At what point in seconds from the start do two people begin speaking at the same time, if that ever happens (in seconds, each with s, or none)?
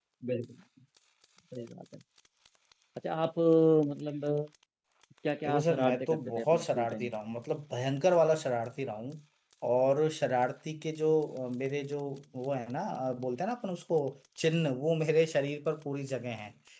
5.4 s